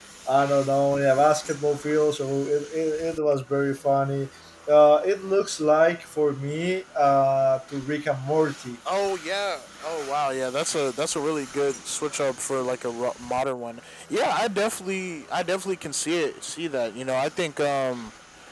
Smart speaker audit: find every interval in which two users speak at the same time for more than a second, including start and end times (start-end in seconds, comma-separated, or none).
none